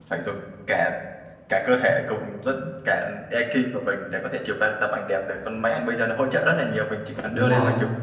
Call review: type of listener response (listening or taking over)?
listening